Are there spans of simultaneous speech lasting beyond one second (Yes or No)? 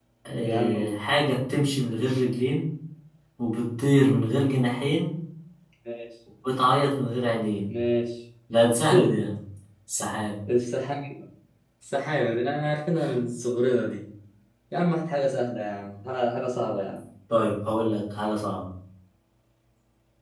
No